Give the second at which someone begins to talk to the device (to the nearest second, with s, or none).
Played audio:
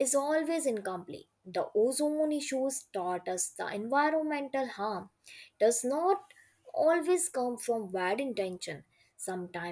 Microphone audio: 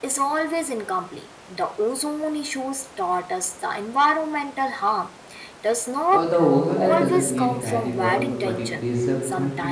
6 s